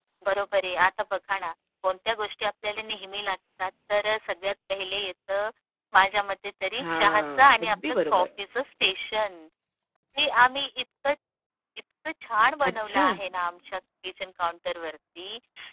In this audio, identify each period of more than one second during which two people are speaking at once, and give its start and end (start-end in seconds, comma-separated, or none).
6.8-8.3